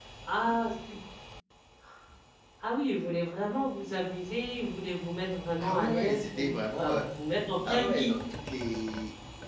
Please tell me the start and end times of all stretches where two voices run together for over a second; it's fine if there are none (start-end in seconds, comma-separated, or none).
5.6-7.1